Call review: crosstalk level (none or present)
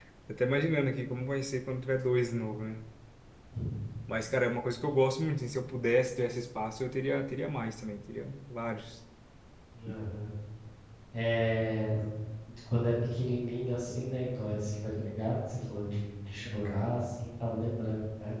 none